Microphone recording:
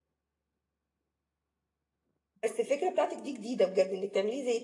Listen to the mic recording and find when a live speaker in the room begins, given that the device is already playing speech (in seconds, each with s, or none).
2.4 s